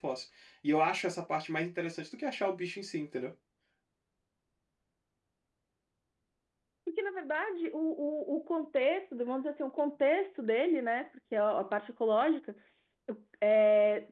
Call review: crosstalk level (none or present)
none